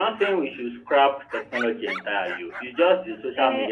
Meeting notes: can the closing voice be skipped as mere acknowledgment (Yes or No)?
No